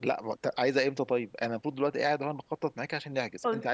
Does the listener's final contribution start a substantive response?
Yes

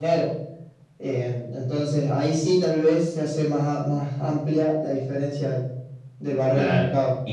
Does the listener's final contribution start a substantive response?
Yes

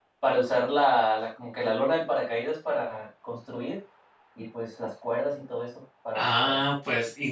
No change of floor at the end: No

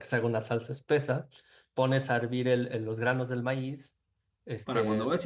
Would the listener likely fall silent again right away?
No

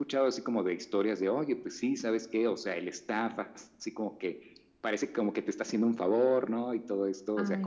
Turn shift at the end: No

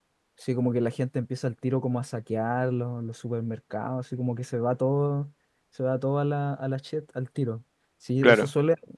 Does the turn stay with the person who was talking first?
Yes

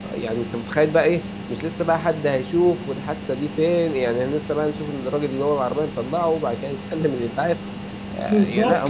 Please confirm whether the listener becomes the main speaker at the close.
Yes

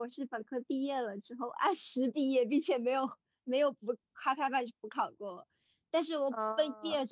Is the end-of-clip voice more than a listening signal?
No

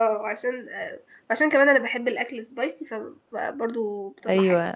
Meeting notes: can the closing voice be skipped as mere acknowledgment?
No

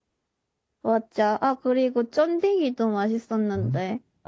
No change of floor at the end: No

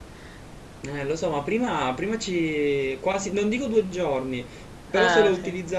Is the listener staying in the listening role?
Yes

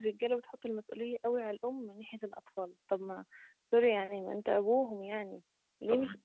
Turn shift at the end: No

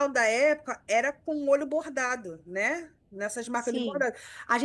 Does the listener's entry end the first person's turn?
No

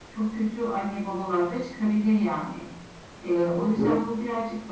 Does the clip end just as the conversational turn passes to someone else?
No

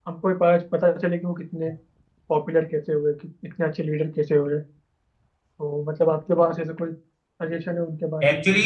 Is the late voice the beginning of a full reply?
Yes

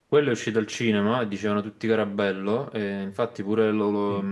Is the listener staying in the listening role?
Yes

